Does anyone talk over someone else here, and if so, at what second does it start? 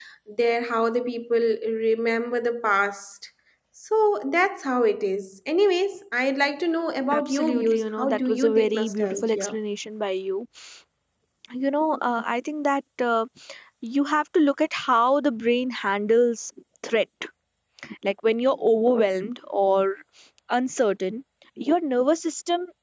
7.1 s

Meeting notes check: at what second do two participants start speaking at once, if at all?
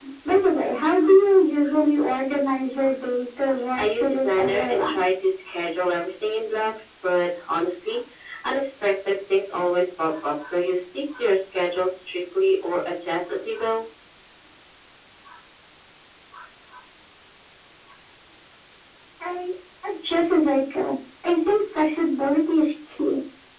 3.8 s

